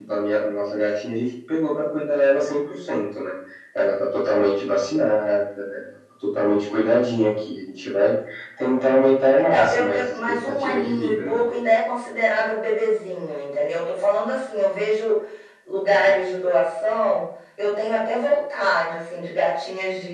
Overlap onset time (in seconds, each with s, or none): 9.4 s